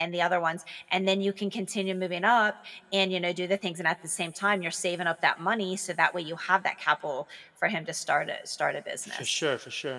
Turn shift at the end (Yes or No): Yes